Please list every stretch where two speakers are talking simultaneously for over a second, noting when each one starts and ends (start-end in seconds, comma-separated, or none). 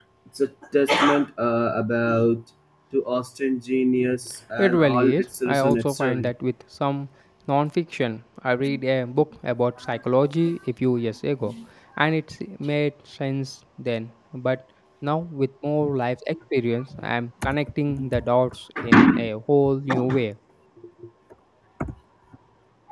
4.6-6.3